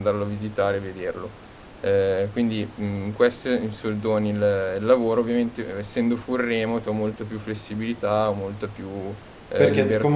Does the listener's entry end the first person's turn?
Yes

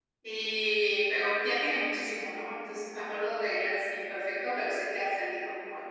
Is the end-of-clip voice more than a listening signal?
Yes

